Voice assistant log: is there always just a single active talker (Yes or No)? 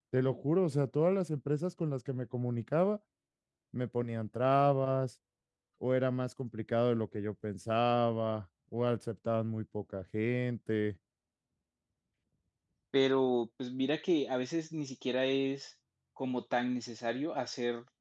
Yes